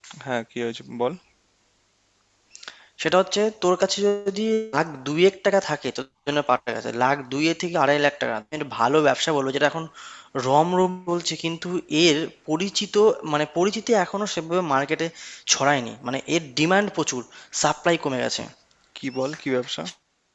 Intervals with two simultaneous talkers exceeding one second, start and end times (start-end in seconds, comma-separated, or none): none